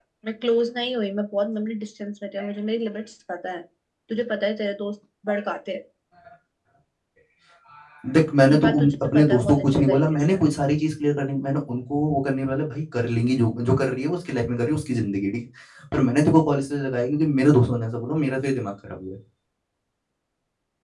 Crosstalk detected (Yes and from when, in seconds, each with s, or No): Yes, from 8.5 s